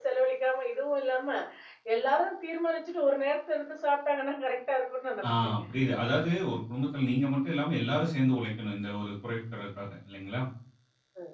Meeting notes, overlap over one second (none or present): none